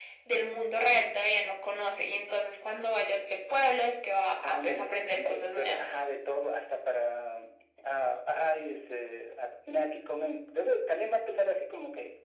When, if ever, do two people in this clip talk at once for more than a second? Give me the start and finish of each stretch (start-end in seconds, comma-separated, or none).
4.4-5.9